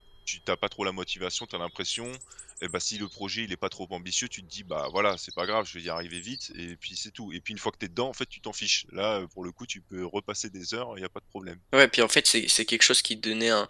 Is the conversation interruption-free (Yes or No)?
Yes